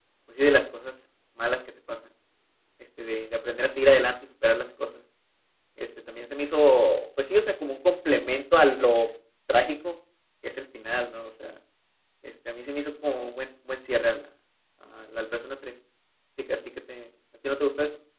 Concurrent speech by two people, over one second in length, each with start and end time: none

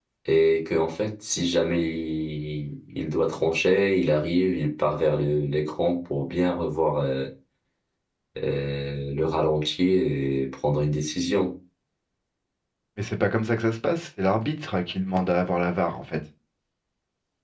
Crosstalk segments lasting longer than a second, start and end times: none

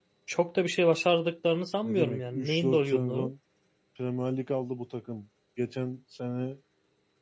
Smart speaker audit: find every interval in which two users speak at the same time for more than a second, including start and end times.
1.8-3.3

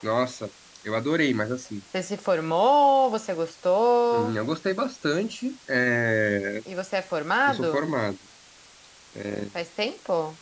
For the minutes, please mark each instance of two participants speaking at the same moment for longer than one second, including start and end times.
none

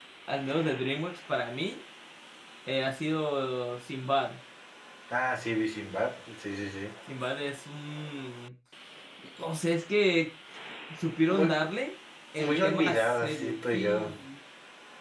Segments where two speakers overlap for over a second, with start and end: 12.4-14.1

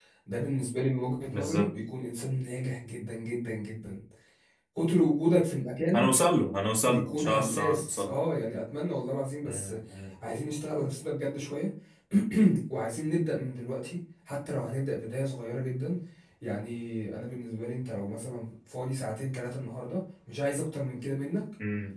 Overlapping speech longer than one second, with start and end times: 6.8-8.1

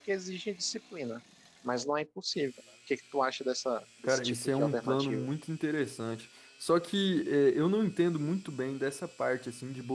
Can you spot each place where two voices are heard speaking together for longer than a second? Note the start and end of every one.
4.0-5.3

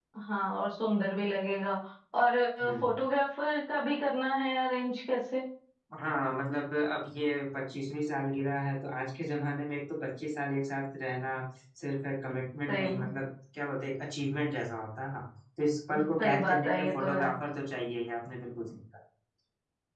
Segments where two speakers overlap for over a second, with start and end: 16.0-17.3

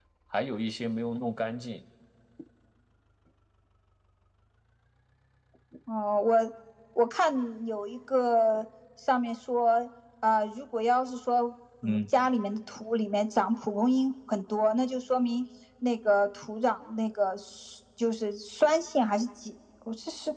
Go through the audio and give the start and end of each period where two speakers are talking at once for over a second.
none

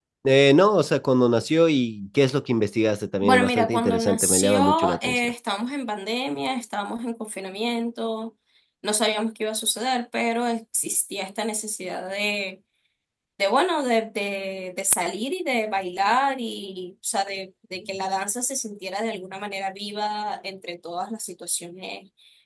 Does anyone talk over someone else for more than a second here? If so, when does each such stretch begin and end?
3.2-5.3

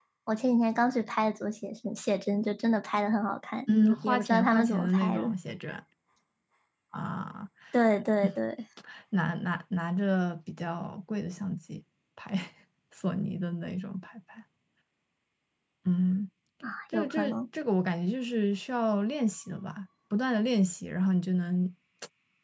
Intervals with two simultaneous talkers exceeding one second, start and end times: 3.7-5.3

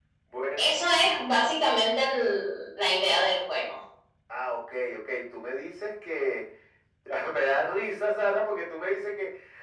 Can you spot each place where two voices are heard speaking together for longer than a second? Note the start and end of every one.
none

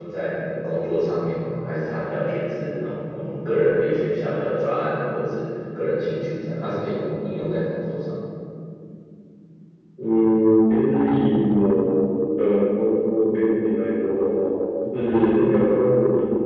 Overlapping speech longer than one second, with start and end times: none

